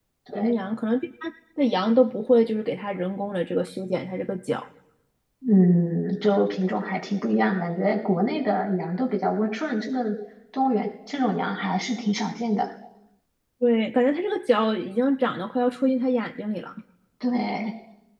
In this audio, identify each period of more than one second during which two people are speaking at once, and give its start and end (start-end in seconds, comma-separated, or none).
none